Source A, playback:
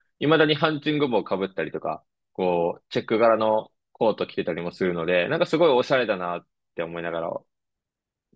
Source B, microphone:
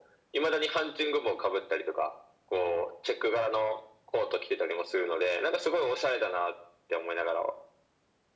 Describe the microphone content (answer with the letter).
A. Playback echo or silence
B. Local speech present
A